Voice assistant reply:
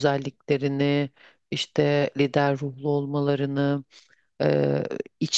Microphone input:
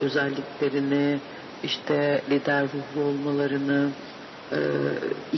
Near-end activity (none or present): none